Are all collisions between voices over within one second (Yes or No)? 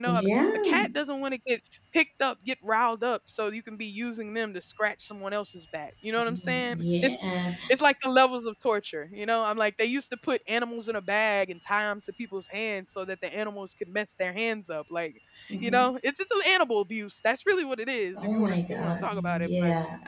No